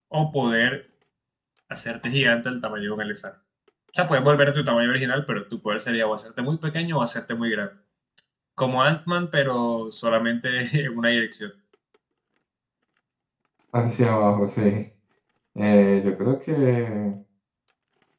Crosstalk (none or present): none